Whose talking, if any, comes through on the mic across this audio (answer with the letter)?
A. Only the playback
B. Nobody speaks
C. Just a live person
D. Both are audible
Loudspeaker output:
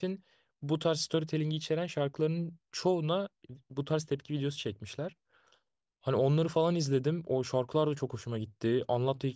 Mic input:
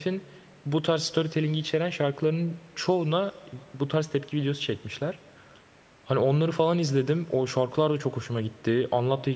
A